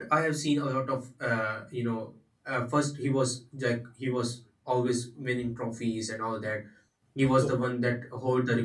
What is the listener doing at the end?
listening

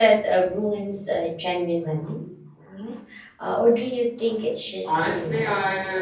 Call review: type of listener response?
taking over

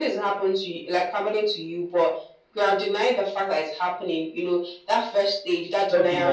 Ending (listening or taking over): listening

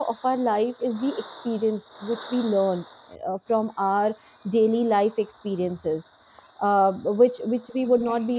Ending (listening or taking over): listening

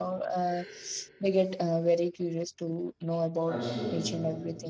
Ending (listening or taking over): listening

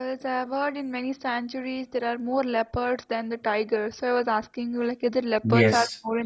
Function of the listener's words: taking over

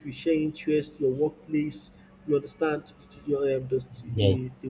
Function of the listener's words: listening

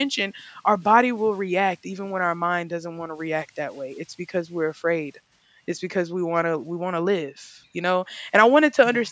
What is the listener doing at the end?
listening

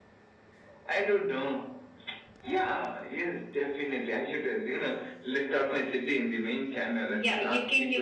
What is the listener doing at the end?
taking over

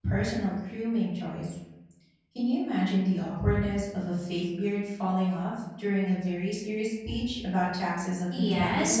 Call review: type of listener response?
taking over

